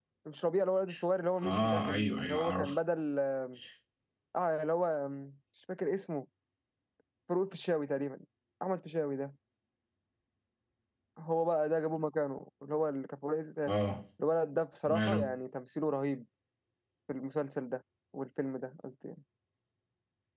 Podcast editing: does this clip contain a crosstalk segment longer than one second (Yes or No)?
Yes